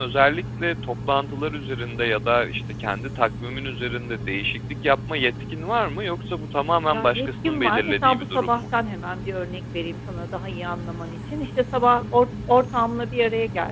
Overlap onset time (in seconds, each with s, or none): 6.9 s